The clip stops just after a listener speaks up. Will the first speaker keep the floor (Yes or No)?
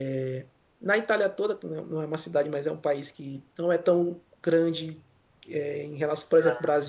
Yes